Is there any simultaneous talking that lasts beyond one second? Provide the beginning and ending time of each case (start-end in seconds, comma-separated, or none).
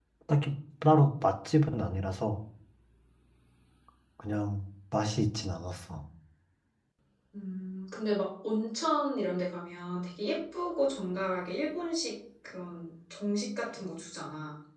none